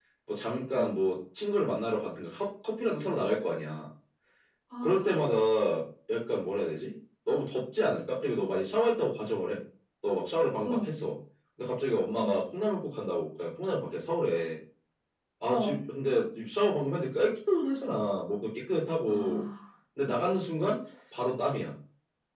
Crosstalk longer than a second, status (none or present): none